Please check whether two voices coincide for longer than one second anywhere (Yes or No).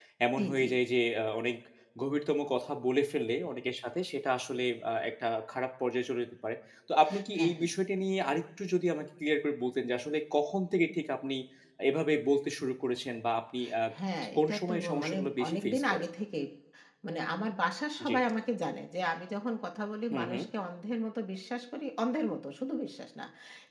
Yes